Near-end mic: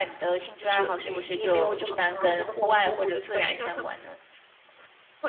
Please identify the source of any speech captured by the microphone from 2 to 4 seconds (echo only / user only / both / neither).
echo only